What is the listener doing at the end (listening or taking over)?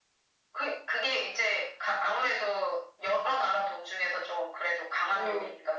taking over